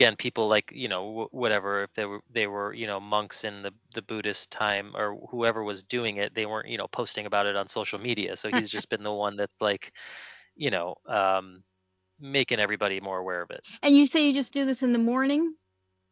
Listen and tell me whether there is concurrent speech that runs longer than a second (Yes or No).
No